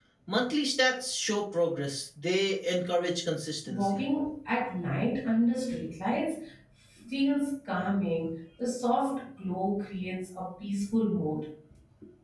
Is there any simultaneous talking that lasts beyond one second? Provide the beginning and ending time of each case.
none

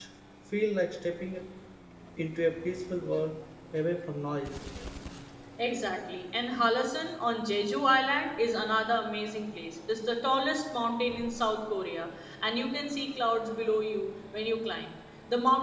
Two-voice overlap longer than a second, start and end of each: none

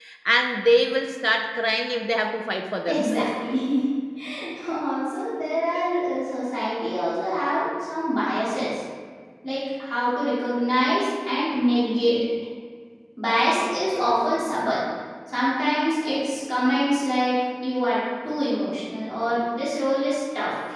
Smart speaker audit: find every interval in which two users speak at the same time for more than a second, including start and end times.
none

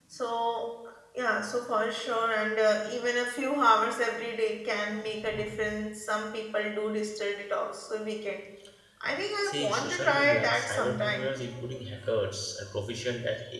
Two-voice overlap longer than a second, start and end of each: 9.4-11.2

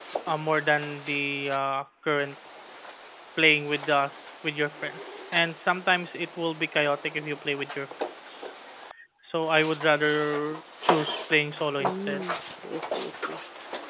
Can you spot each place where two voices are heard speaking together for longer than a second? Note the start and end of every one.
none

